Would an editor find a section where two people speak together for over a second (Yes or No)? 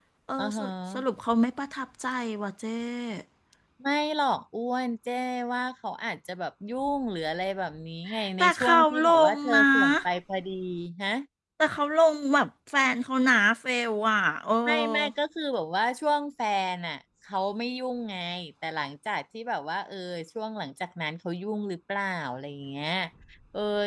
Yes